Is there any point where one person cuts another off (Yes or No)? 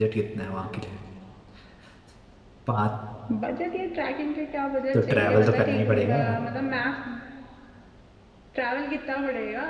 Yes